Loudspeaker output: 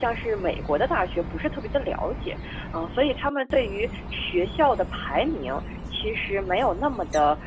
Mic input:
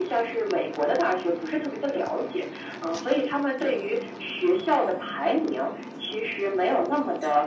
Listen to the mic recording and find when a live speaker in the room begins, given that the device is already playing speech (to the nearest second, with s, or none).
none